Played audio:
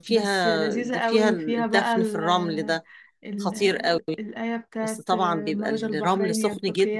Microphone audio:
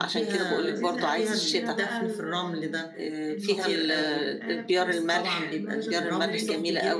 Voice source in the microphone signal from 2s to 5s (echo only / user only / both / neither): both